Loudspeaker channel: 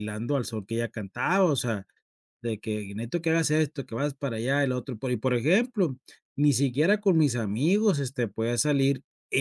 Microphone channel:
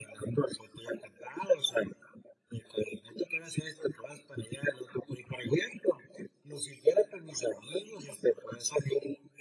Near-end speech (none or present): none